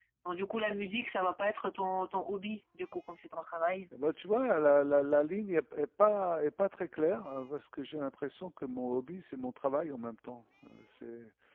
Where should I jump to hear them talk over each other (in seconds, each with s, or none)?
none